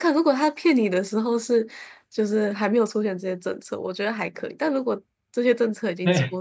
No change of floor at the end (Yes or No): Yes